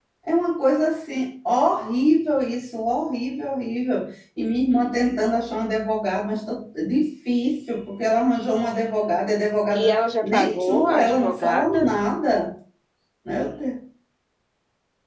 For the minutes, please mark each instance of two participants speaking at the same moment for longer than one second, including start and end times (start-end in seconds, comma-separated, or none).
9.7-11.9